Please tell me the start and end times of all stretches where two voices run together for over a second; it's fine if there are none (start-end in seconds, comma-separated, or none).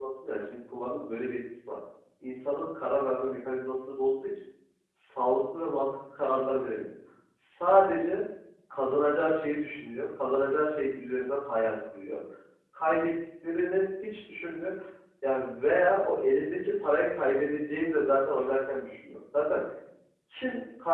none